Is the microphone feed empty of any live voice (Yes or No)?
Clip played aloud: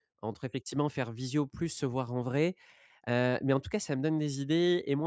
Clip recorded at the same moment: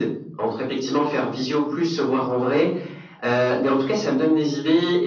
Yes